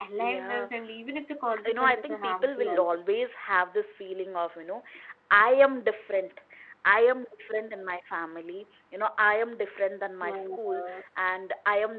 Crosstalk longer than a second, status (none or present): present